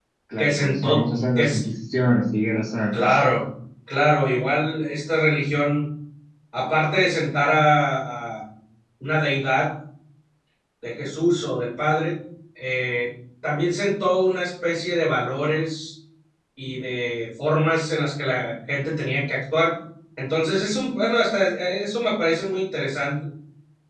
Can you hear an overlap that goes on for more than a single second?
Yes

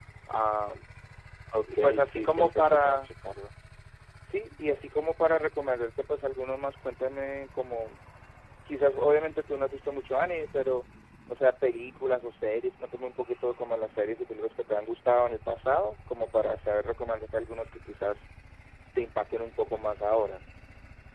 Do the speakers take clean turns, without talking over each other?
No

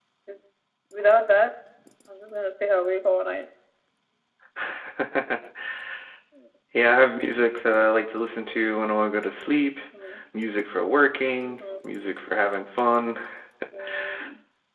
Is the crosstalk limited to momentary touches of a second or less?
Yes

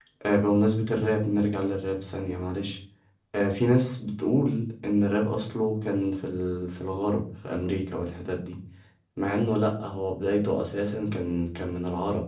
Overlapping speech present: No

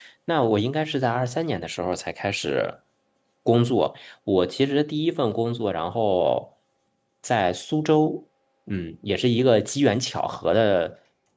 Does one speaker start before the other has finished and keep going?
No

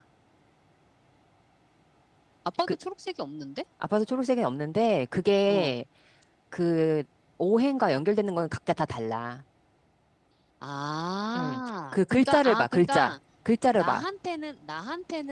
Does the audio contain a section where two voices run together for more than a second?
Yes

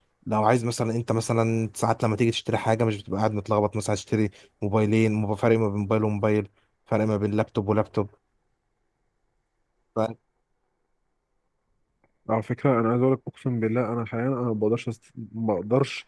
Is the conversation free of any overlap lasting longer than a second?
Yes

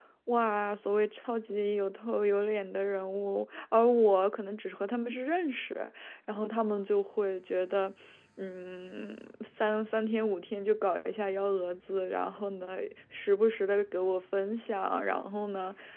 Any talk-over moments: No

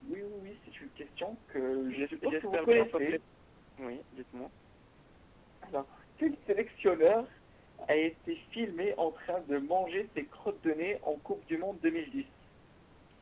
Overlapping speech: Yes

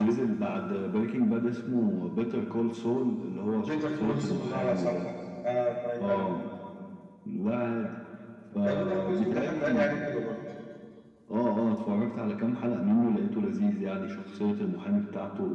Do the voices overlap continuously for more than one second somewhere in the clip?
Yes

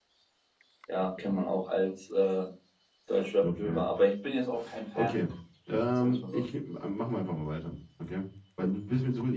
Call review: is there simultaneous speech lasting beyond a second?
No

